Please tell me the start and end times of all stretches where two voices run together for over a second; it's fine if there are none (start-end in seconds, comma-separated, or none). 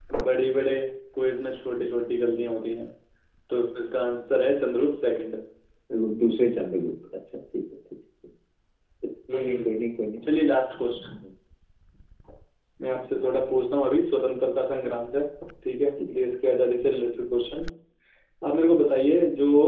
none